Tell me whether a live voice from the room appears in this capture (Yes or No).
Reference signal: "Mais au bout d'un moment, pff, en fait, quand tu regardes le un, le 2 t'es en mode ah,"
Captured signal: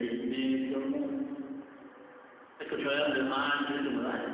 No